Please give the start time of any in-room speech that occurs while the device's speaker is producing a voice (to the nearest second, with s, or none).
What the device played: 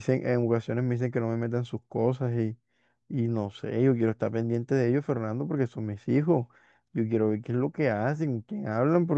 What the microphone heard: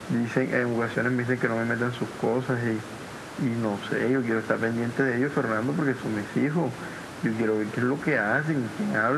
none